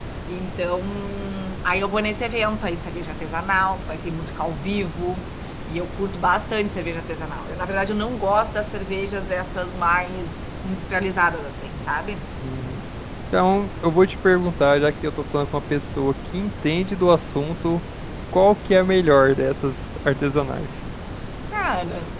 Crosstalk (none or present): none